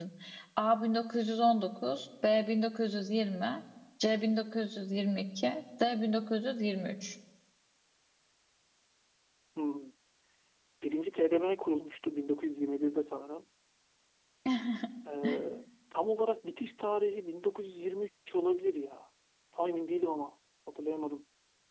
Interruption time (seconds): none

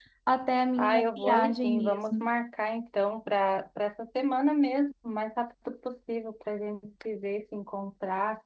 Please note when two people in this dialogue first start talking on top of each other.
0.8 s

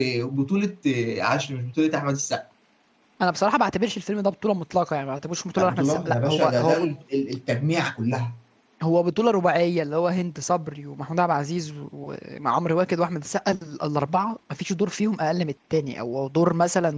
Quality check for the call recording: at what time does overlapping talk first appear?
5.6 s

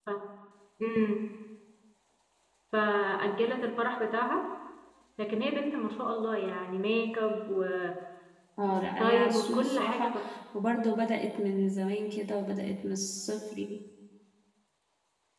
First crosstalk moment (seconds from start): 8.6 s

